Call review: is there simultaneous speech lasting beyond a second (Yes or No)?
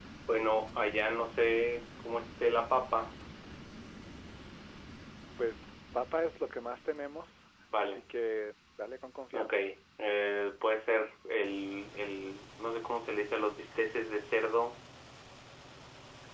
No